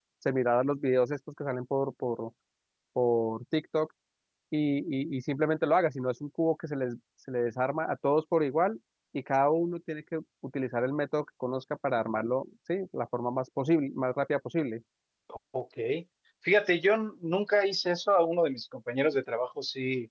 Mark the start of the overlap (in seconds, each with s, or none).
none